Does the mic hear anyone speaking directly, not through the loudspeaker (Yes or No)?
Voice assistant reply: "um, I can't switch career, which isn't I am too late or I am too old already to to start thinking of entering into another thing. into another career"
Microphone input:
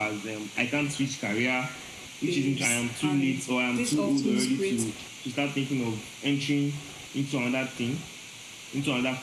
Yes